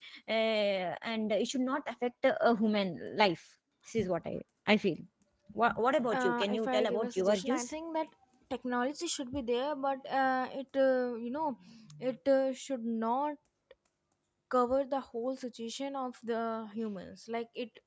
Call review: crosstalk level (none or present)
present